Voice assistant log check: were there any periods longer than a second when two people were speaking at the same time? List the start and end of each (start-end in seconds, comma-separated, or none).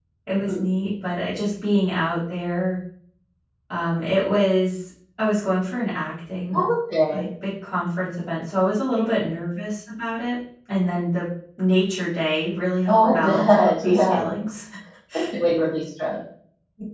12.9-14.3